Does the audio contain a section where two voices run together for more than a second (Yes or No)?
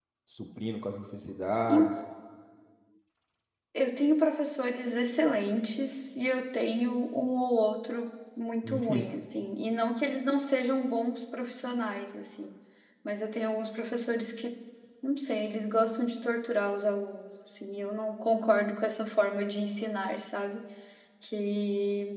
No